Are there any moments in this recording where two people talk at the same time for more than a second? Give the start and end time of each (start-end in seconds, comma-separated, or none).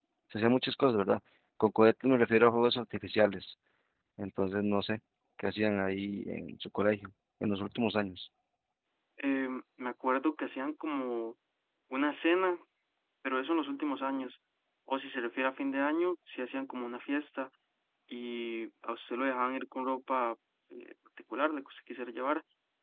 none